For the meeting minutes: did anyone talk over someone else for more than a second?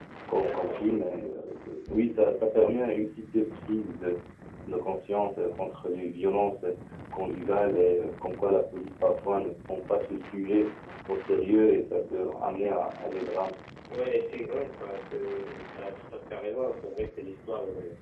No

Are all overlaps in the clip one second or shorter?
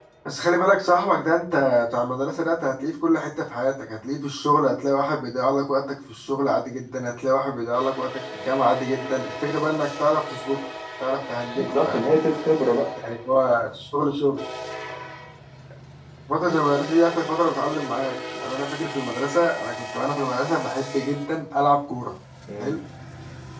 Yes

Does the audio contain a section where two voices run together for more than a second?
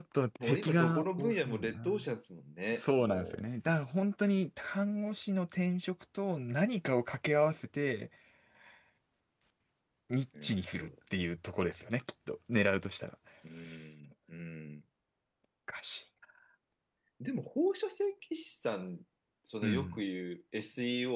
Yes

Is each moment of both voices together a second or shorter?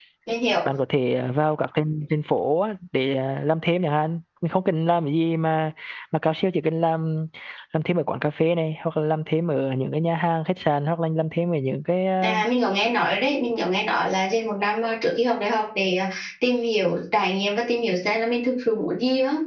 Yes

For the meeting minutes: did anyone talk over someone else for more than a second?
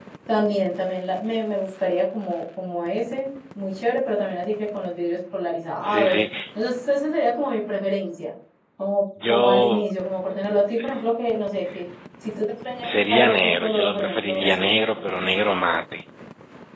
Yes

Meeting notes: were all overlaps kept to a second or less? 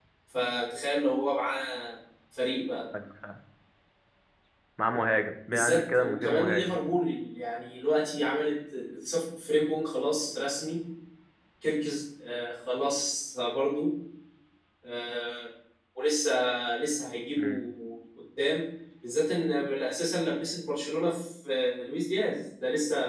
No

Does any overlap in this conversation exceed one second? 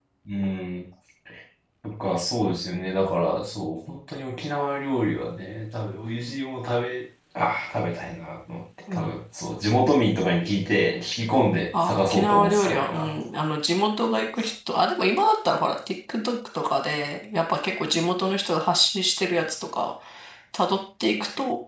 Yes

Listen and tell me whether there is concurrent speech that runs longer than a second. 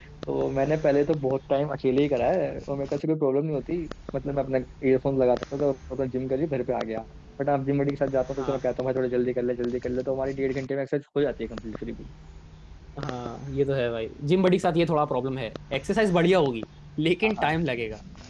No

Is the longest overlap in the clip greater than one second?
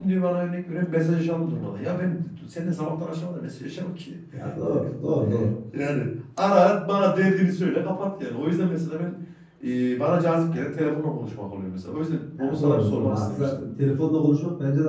Yes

